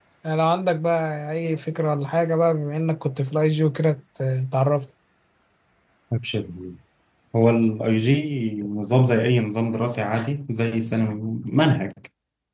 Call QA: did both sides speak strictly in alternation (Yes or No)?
Yes